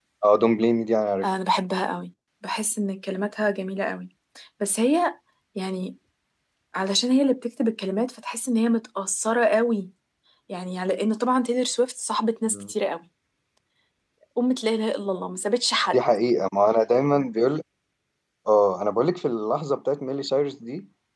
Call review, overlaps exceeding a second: none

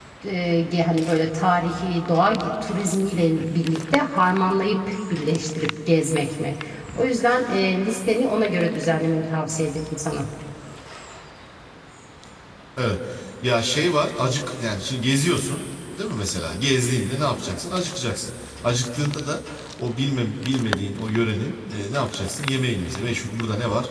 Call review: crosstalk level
none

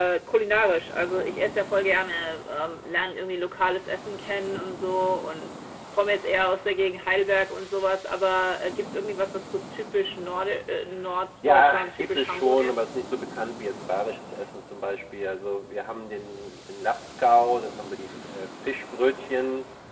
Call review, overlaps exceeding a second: present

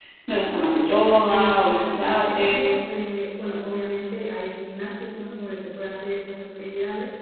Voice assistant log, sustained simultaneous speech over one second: present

